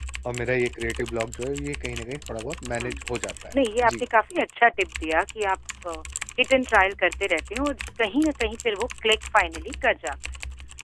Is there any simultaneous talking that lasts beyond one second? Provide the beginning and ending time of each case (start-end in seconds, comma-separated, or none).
none